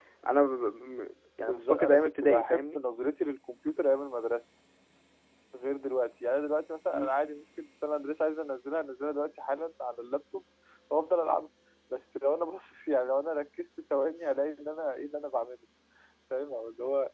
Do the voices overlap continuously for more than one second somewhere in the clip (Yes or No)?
Yes